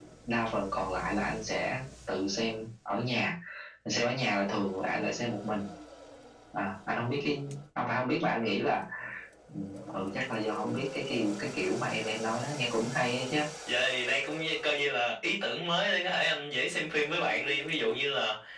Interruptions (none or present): none